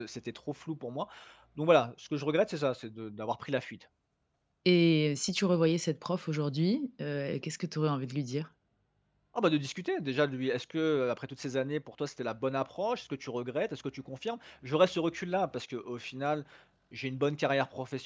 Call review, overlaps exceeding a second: none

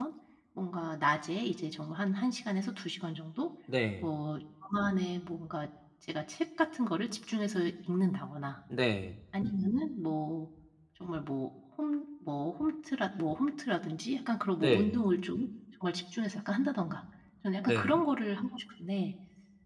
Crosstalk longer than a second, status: none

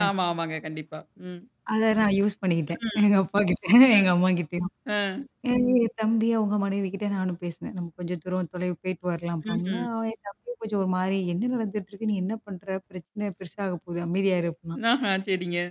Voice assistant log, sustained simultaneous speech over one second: none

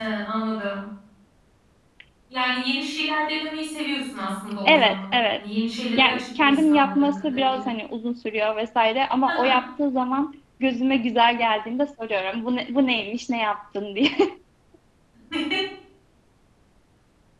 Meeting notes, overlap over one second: present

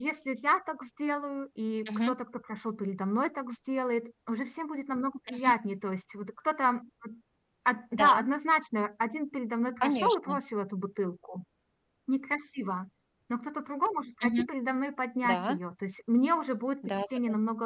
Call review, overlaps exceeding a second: none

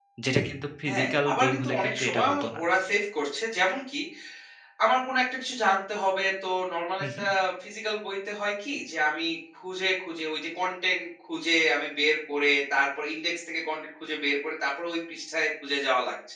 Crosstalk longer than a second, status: present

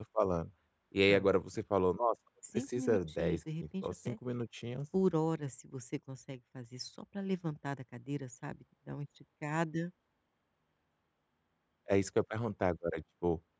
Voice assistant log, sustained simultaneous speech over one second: present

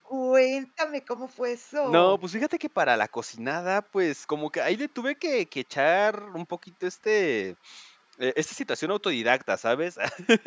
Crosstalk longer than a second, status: none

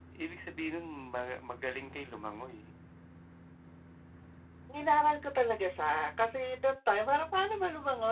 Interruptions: none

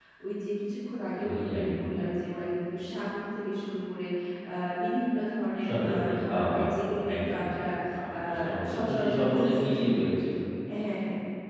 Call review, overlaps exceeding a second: present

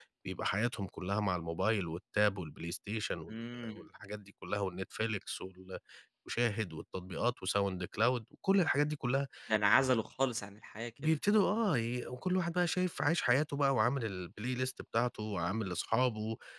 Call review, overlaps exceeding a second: none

